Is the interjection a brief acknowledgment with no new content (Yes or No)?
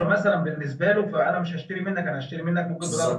No